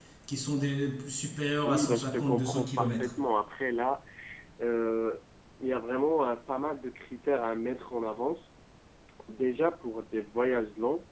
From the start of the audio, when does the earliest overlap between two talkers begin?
1.6 s

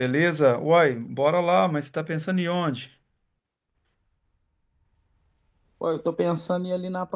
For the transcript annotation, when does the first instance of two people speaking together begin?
none

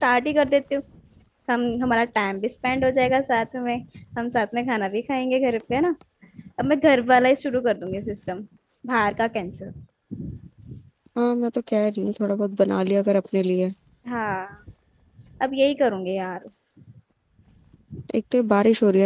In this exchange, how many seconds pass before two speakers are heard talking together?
none

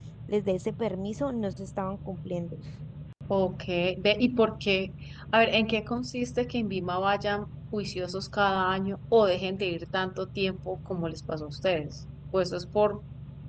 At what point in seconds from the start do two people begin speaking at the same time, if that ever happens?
none

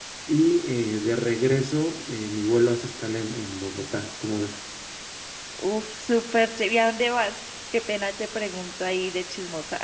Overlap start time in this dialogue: none

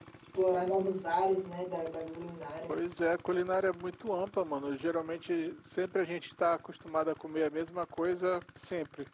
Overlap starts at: none

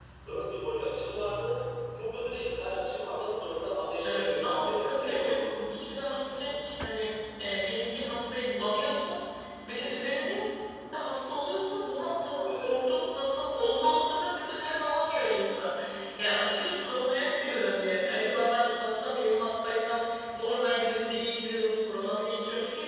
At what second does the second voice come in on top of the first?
4.0 s

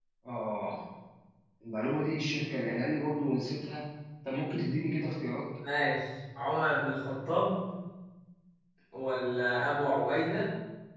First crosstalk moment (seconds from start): none

